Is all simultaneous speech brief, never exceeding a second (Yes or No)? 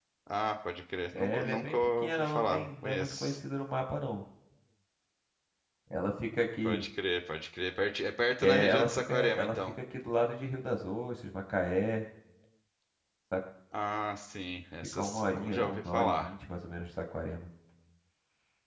No